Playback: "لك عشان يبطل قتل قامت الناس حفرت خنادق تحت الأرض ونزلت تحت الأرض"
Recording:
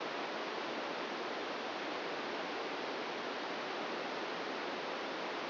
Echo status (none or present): none